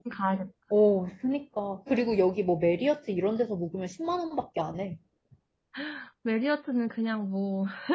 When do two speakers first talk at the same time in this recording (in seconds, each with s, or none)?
none